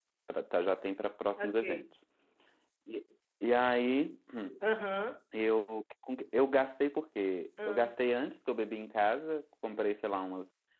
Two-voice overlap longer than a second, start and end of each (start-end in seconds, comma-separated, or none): none